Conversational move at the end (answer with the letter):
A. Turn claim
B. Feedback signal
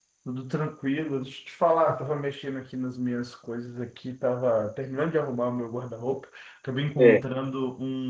B